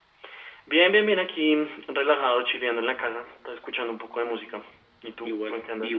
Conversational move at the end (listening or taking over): taking over